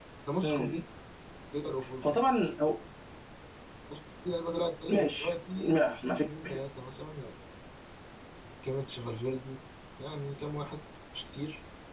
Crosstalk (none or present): present